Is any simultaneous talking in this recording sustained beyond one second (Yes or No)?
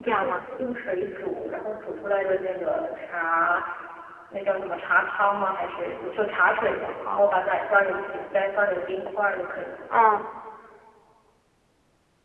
No